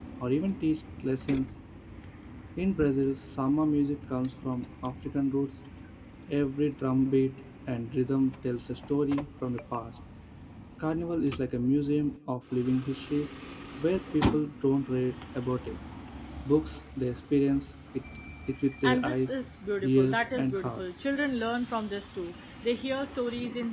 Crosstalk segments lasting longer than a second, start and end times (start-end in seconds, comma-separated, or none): 19.8-21.0